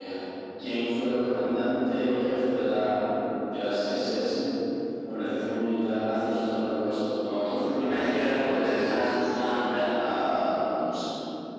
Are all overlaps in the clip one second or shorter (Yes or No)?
No